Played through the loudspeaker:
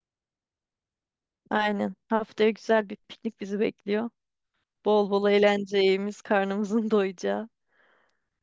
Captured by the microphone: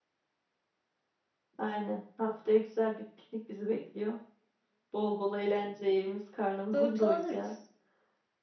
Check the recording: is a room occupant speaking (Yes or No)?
Yes